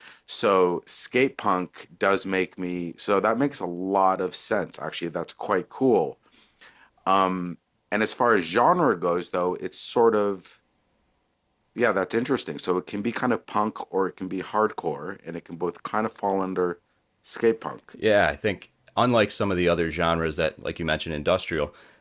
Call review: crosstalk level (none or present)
none